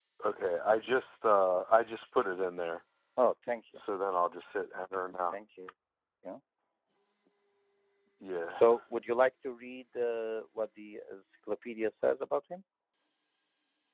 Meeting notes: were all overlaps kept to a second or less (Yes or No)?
Yes